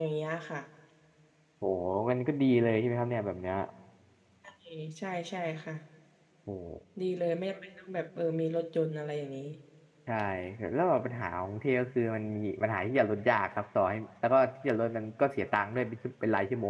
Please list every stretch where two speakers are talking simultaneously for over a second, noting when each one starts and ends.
none

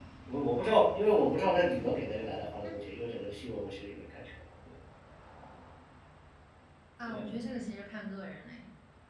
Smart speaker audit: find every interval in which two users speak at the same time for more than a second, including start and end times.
none

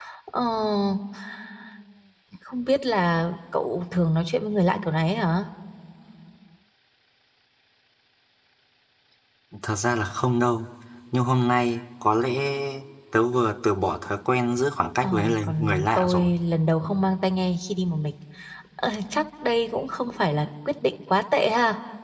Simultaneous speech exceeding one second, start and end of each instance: 15.0-16.3

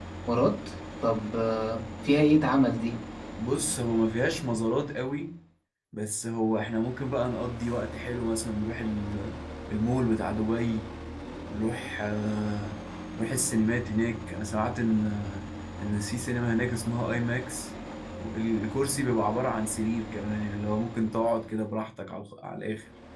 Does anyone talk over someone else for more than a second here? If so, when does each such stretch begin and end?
none

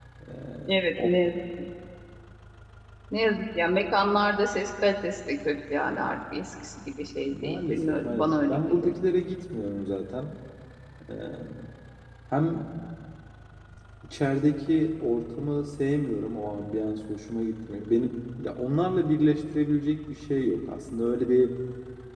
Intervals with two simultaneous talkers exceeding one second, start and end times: 7.3-8.9

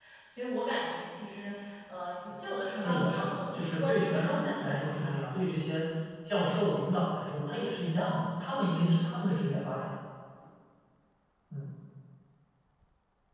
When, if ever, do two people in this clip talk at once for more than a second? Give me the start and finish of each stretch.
2.8-5.1

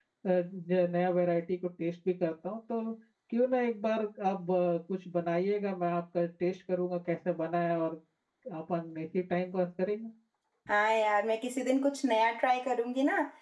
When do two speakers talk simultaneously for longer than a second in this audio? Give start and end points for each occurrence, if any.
none

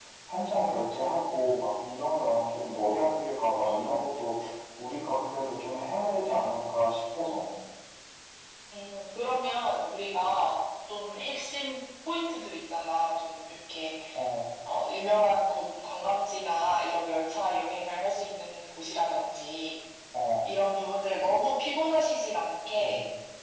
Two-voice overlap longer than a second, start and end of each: none

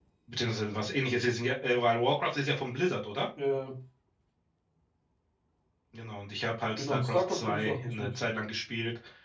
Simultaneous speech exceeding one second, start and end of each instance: 6.8-8.2

